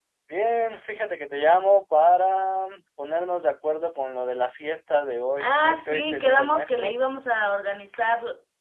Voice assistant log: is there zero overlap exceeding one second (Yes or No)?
No